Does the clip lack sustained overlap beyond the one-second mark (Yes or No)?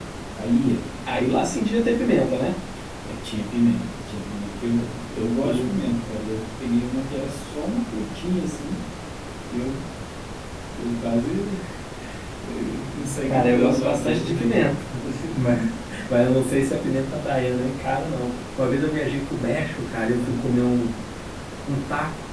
No